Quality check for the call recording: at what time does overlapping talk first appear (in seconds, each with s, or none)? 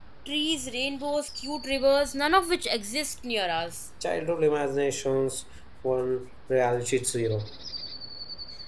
none